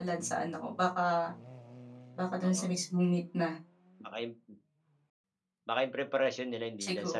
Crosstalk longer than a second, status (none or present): none